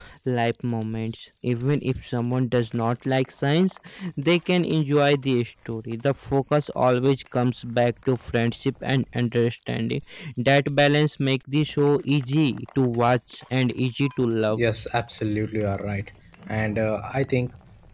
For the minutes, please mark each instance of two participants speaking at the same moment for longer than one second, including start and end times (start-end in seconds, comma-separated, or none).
none